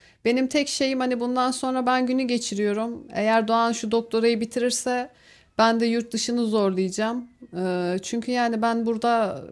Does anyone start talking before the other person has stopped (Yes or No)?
No